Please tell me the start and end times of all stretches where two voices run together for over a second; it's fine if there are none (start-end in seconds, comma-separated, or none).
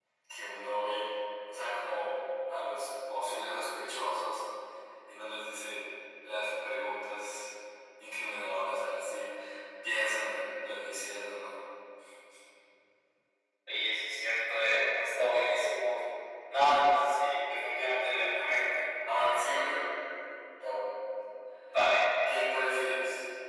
none